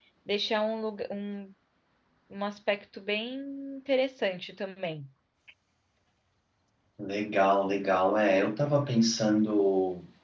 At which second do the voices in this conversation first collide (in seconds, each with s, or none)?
none